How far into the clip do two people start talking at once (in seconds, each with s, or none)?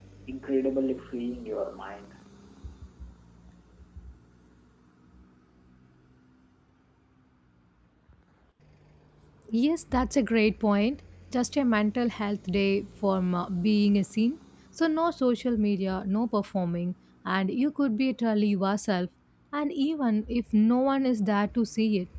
none